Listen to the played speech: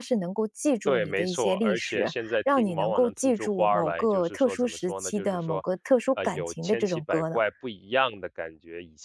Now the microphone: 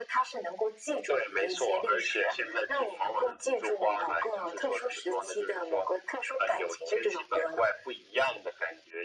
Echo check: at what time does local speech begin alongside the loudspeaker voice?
none

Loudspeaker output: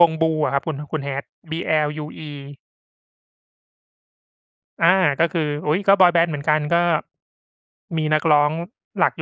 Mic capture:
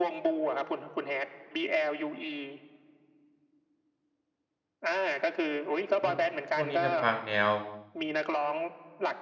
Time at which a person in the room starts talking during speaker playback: 6.0 s

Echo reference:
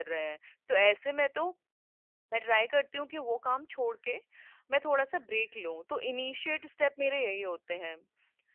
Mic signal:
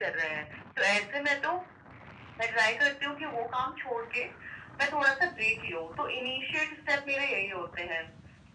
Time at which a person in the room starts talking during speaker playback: none

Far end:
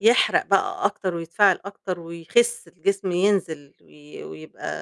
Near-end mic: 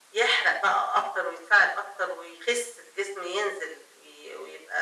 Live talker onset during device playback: none

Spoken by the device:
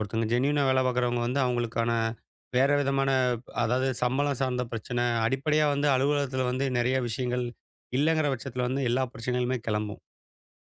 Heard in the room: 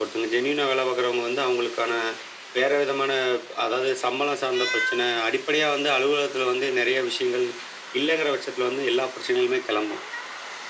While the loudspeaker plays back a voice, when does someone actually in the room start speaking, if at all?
none

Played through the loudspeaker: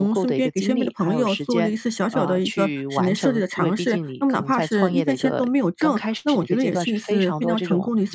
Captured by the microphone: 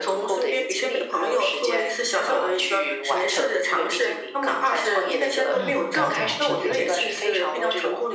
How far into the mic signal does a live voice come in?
5.6 s

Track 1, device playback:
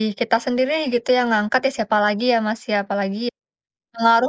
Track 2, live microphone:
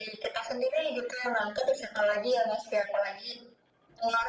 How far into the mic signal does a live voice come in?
none

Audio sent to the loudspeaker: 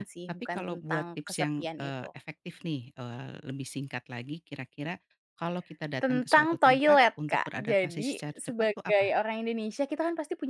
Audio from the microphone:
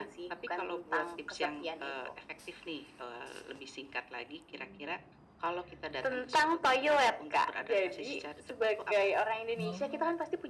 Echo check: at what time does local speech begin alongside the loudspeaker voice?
9.6 s

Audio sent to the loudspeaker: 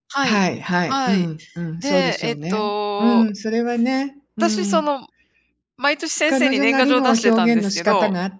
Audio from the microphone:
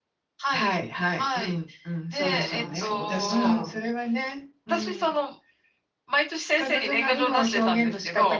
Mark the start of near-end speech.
2.1 s

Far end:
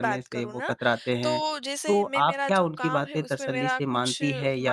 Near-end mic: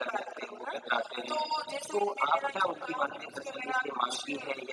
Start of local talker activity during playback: none

